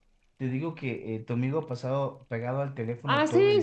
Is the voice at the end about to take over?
Yes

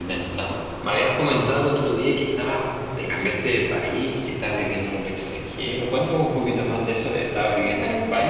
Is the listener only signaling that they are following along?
No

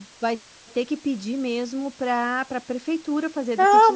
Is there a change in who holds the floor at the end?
Yes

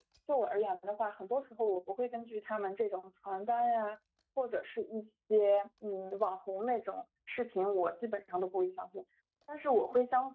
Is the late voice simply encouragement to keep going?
Yes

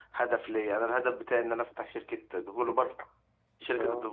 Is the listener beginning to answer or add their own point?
No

